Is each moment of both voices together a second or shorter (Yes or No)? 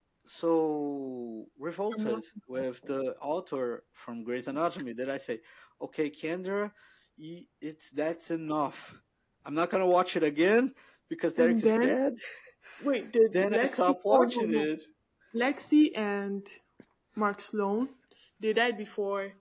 No